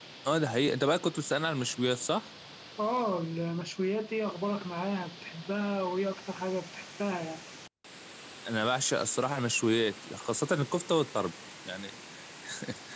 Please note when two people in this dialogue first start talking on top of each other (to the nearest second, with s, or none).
none